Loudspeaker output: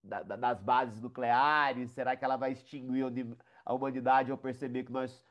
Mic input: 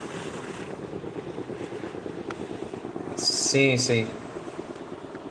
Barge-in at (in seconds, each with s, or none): 3.1 s